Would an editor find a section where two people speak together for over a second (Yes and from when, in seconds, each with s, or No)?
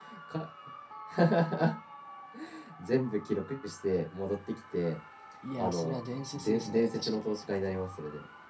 Yes, from 5.6 s